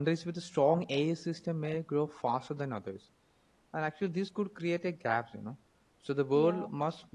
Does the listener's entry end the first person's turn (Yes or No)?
No